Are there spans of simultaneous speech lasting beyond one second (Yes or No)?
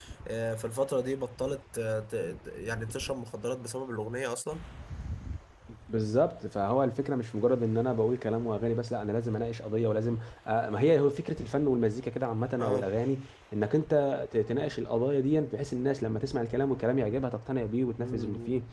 No